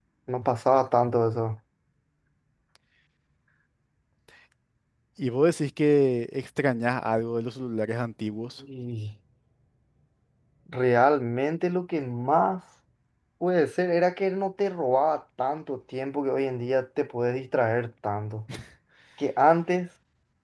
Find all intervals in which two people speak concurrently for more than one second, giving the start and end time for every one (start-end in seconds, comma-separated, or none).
none